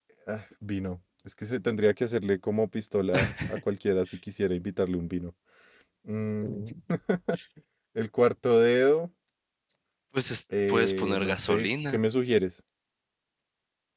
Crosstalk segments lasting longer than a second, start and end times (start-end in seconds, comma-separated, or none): 10.7-12.0